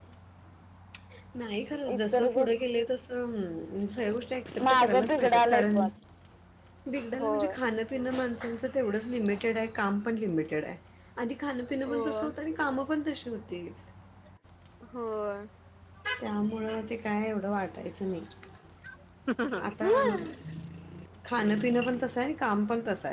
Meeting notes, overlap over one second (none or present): present